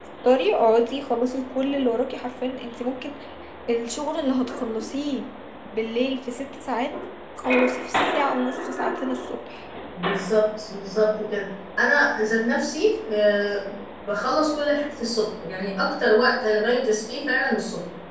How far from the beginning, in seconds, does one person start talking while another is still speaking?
none

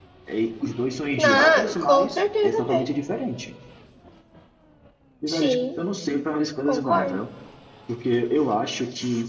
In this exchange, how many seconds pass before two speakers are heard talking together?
1 s

